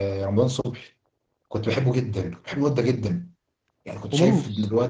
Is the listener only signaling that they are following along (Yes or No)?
Yes